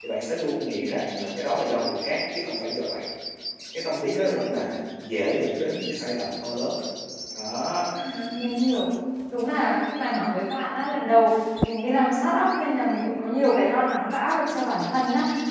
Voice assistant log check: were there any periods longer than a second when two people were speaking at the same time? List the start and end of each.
none

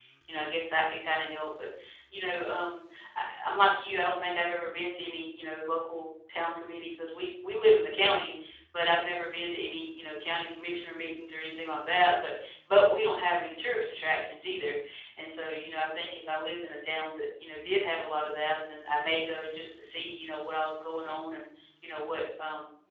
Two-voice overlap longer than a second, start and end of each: none

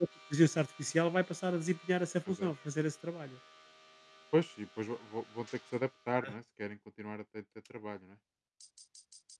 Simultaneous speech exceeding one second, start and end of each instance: none

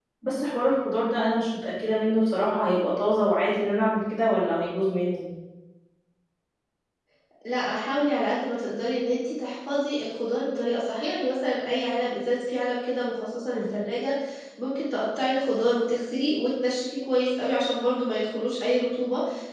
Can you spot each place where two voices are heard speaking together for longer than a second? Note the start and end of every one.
none

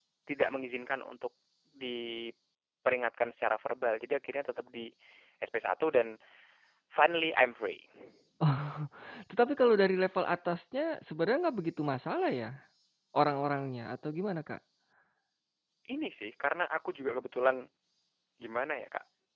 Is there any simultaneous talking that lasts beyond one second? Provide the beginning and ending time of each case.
none

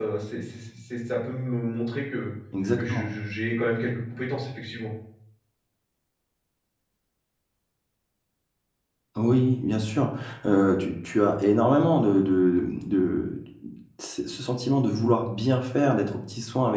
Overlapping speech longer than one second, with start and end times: none

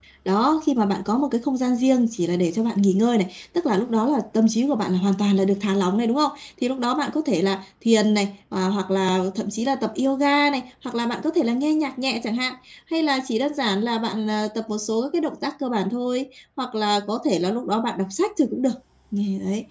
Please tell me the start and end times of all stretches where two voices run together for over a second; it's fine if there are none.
none

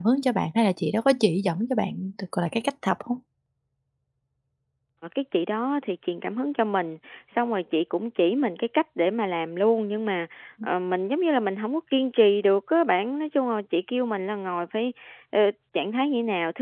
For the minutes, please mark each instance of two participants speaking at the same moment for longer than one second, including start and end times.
none

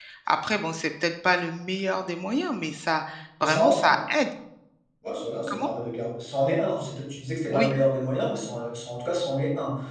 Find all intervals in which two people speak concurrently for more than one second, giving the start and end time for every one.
none

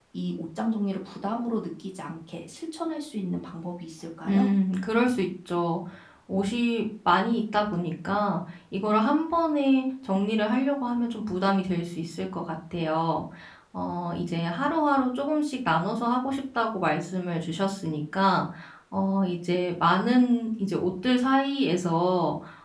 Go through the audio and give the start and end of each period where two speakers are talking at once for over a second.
none

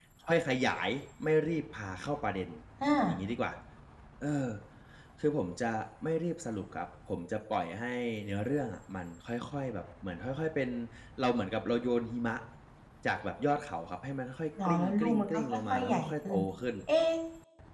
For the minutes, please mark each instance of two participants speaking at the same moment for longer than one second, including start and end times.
14.7-16.4

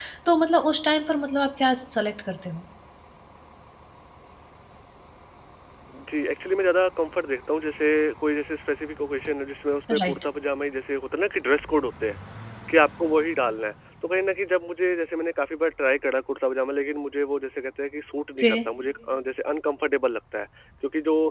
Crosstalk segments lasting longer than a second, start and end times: none

